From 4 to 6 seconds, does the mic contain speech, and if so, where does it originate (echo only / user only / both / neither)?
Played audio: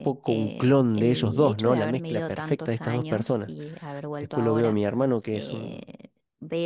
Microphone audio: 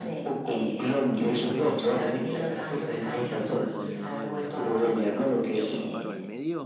both